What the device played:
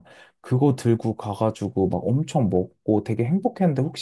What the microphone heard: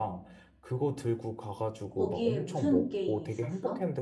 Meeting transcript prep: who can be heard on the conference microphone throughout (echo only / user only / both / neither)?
both